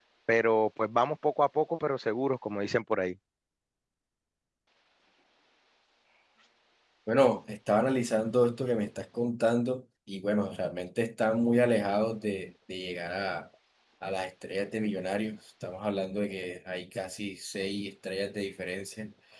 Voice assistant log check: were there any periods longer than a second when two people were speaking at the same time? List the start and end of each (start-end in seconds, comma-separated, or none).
none